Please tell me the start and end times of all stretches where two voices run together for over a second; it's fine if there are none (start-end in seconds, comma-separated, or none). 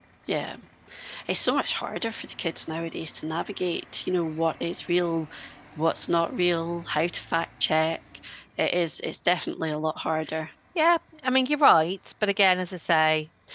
none